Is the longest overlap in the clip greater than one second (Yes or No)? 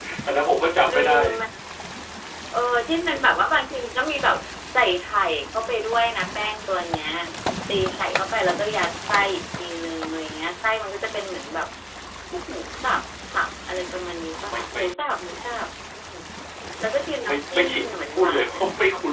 Yes